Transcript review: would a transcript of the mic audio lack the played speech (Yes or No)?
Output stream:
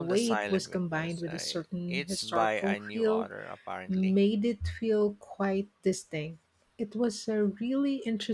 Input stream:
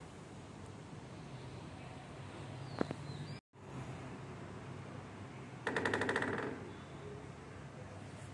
Yes